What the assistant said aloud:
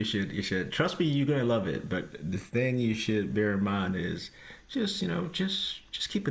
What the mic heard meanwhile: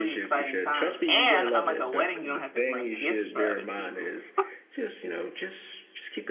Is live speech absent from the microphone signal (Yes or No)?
No